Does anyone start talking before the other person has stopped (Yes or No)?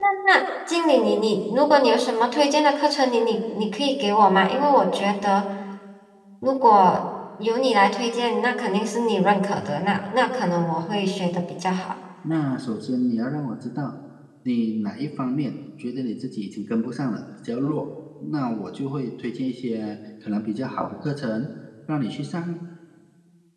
No